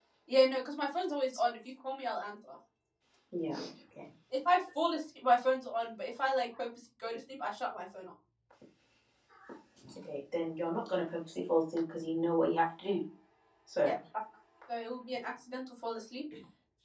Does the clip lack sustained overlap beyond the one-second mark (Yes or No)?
Yes